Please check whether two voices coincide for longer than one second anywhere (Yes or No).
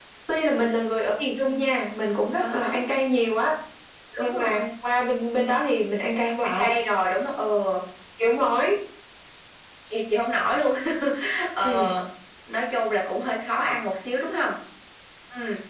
No